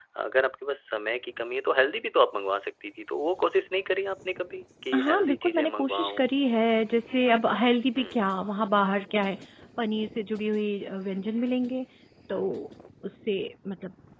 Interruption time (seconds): 5 s

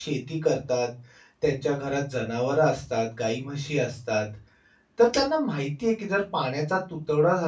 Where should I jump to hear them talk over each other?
none

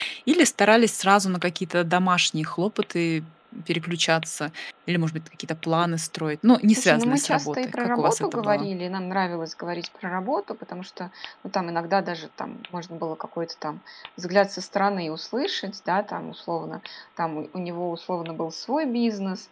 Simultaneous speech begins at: 7 s

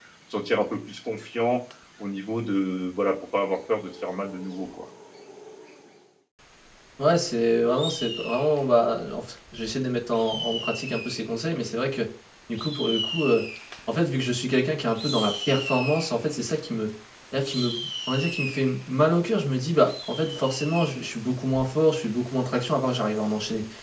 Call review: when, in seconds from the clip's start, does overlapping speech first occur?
none

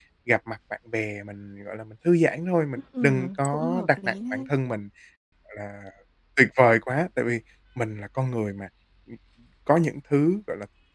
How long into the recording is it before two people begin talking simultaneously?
3 s

